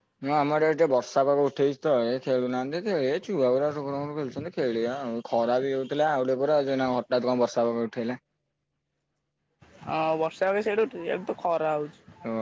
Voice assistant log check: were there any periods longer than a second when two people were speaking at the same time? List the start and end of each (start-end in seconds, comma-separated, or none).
none